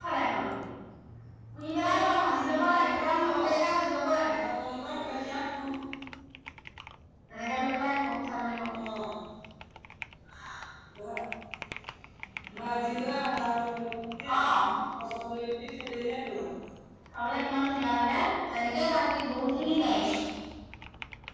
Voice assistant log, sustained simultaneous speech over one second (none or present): present